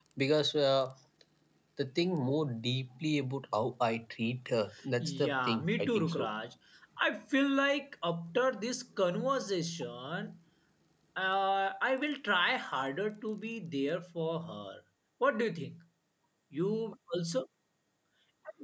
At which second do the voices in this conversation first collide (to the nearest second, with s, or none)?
5 s